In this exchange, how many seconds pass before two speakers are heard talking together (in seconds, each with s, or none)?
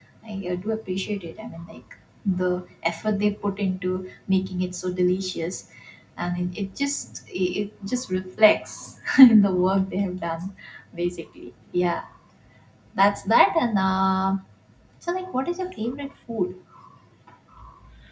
none